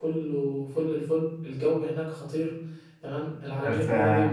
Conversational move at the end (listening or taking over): listening